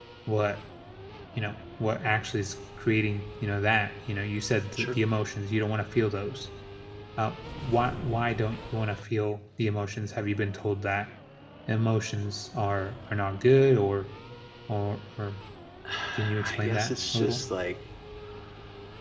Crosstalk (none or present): present